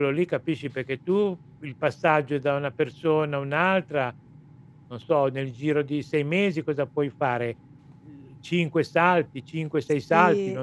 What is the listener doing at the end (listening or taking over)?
taking over